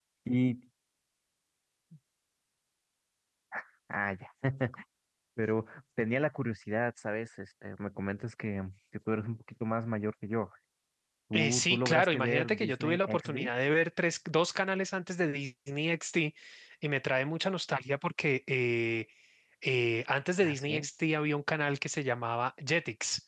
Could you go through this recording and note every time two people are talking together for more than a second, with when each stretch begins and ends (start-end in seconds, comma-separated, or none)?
11.3-13.5